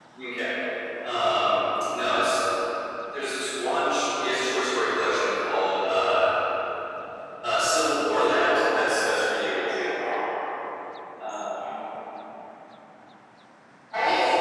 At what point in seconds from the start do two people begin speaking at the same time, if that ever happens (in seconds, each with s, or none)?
8.2 s